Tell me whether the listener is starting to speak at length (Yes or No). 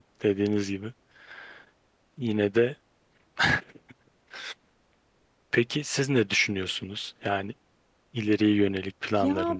Yes